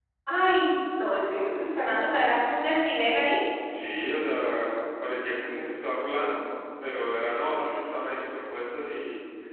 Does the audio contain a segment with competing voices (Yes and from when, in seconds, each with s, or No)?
No